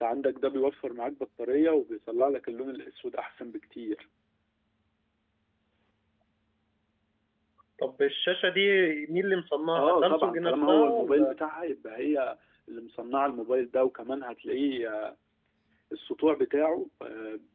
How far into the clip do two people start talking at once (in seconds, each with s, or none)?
9.8 s